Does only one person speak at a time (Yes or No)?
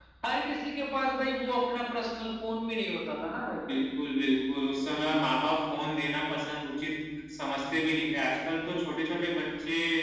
Yes